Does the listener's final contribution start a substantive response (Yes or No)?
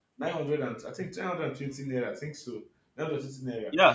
Yes